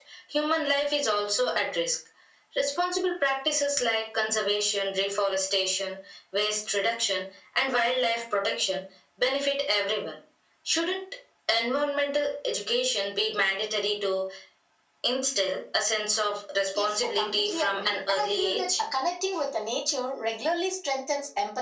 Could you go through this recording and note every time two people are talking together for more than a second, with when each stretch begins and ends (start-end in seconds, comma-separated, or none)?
16.8-18.7